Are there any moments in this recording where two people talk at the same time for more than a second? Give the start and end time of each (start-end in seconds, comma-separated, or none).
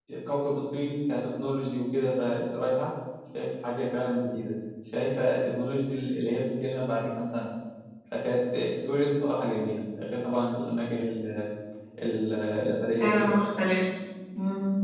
none